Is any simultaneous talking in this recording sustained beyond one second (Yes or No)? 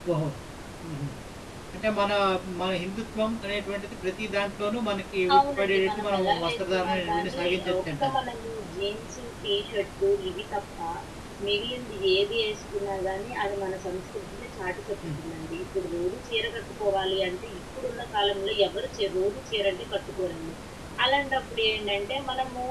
Yes